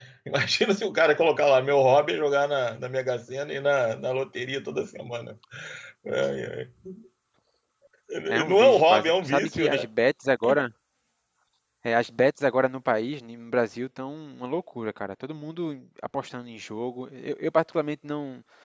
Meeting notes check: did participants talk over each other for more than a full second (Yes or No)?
Yes